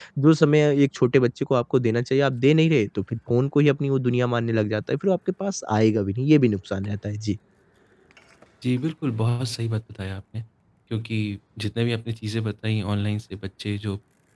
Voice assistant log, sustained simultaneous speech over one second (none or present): none